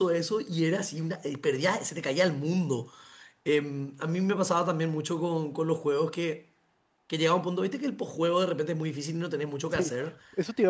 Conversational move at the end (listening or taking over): taking over